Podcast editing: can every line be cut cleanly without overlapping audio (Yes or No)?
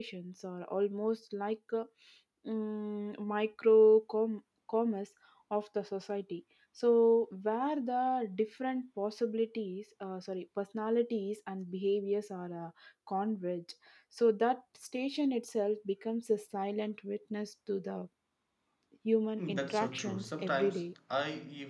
No